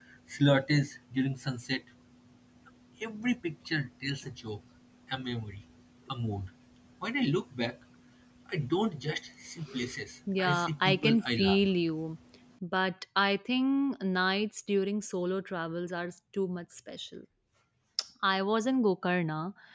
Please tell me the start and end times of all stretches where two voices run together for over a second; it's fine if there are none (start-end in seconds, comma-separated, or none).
10.4-11.6